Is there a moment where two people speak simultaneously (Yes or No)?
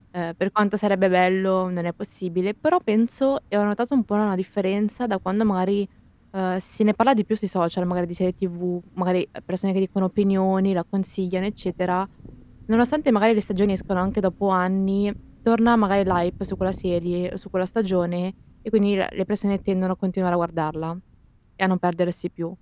No